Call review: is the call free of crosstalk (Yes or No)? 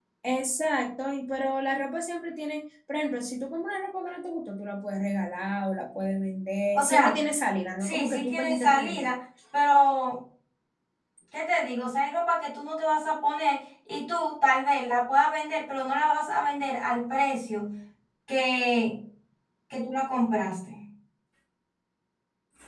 No